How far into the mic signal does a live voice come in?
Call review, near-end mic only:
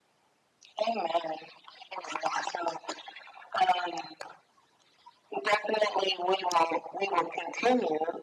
none

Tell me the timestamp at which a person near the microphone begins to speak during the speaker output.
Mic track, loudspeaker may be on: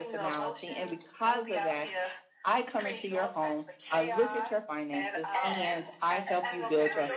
5.4 s

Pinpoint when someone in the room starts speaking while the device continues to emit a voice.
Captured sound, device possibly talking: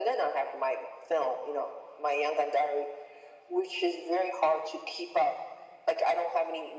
none

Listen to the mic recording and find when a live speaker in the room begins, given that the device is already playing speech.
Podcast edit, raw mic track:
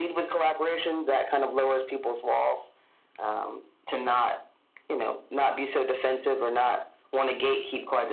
none

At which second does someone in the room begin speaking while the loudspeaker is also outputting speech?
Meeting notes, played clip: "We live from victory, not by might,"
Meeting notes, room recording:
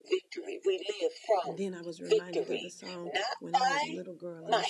1.4 s

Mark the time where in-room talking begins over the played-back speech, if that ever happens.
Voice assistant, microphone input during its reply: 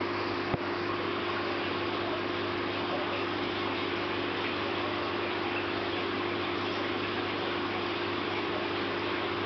none

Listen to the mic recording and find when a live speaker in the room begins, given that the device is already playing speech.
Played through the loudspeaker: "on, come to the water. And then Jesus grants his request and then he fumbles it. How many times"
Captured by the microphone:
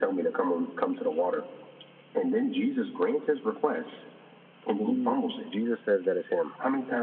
4.8 s

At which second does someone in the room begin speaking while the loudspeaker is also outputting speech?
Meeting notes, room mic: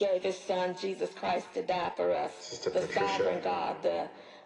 2.4 s

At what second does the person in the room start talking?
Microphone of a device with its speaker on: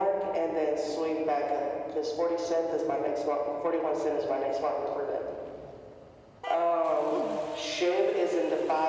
7.1 s

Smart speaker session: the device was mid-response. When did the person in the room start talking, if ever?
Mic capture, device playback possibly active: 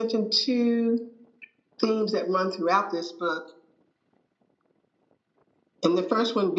none

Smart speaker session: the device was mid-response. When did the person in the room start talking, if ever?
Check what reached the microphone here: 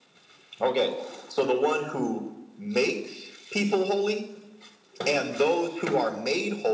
none

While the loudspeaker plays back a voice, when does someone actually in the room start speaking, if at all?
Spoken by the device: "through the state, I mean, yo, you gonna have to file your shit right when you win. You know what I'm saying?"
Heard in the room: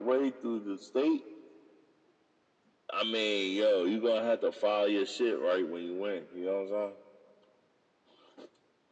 none

